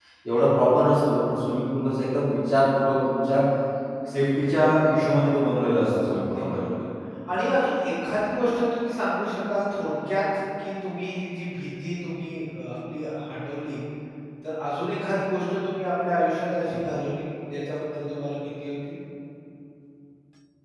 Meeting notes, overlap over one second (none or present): none